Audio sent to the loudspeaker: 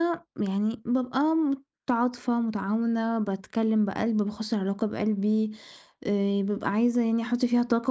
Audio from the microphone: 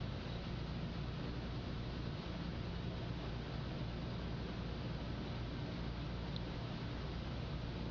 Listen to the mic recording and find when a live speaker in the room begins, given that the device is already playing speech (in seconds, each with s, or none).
none